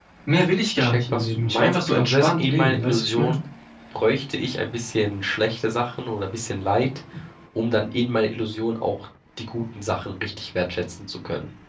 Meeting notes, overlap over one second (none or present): present